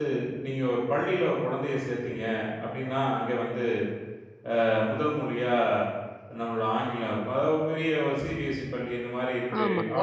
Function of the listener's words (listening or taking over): listening